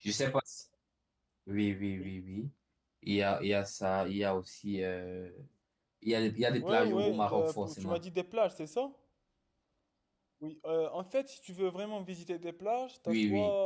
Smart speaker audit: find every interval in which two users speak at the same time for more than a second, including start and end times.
6.6-8.0

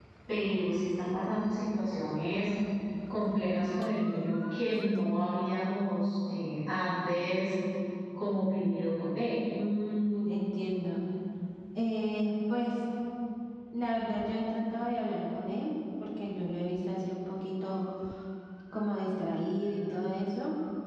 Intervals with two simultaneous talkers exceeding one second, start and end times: none

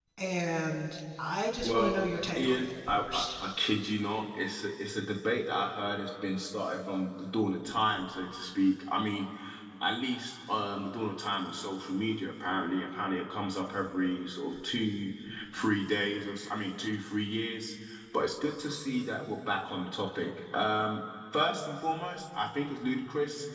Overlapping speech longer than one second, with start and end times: 1.6-3.3

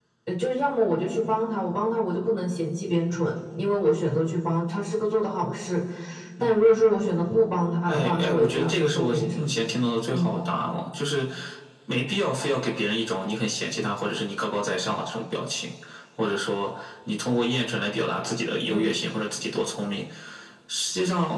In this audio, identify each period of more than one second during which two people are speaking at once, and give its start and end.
7.9-9.4

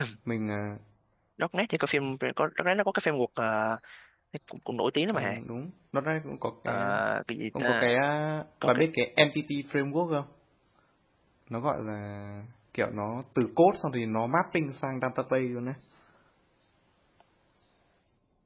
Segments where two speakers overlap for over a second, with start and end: none

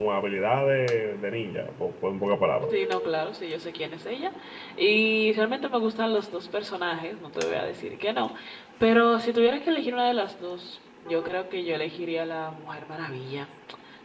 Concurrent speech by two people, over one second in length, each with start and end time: none

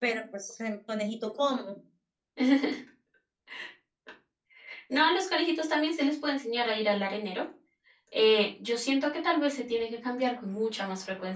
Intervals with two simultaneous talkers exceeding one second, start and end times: none

